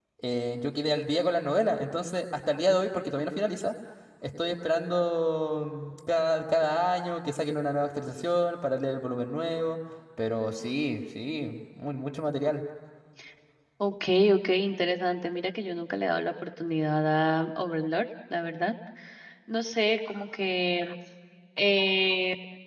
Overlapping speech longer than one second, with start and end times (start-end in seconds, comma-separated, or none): none